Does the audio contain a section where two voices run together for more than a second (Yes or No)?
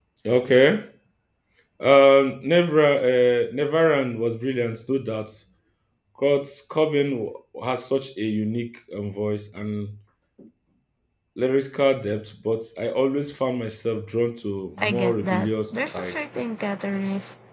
Yes